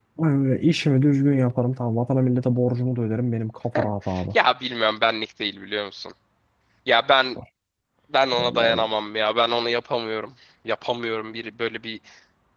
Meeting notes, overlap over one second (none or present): none